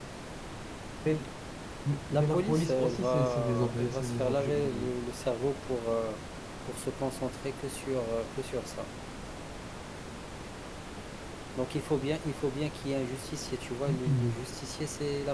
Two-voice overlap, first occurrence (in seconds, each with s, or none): 2.1 s